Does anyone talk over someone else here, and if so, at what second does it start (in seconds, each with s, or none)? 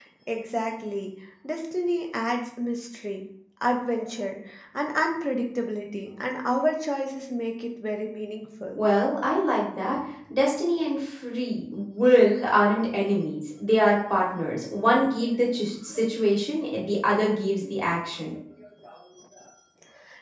none